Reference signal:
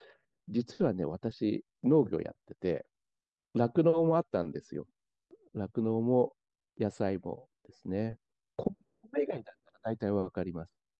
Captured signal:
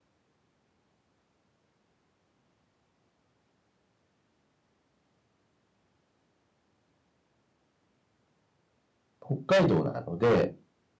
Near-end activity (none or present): present